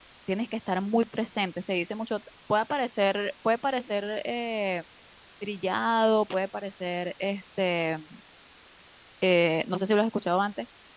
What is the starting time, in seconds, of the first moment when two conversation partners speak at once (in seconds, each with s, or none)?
none